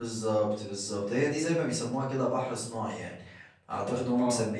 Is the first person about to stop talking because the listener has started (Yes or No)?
No